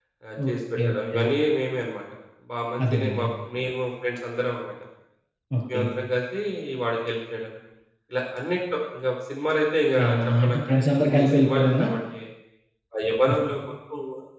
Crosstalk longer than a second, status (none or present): present